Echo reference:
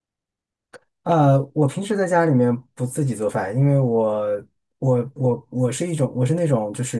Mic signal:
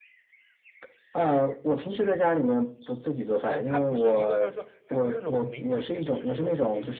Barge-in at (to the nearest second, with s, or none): 3 s